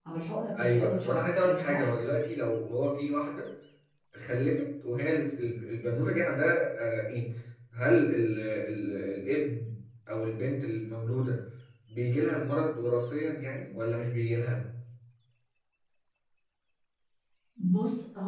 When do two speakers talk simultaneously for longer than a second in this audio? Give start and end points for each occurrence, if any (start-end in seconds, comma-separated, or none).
0.6-1.9